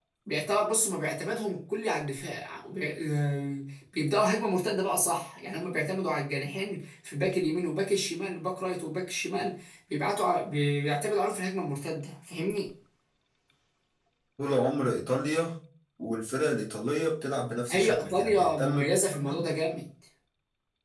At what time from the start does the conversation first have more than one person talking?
18 s

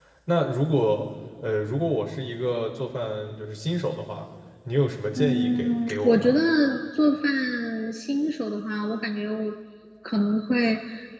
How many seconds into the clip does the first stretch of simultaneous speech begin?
5 s

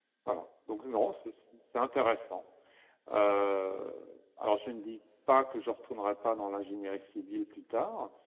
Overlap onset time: none

